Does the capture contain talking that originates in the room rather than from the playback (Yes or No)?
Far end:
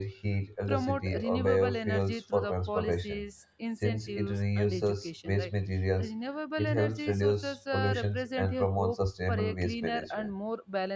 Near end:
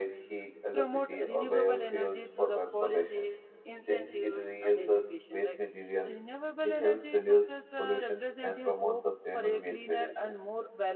No